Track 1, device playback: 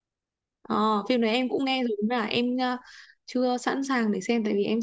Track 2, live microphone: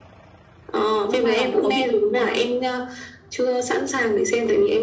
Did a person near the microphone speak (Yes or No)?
Yes